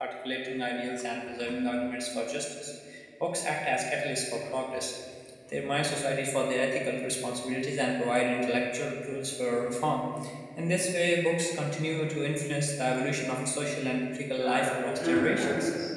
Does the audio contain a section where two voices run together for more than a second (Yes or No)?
Yes